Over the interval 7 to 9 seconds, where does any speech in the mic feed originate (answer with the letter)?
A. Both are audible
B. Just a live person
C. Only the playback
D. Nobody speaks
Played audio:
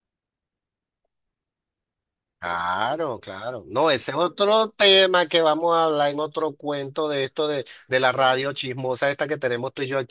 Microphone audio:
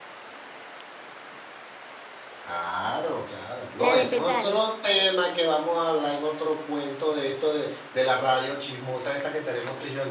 C